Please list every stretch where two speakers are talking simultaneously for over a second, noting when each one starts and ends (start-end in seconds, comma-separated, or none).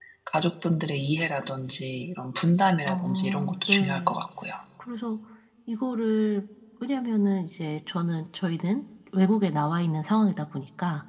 2.9-4.3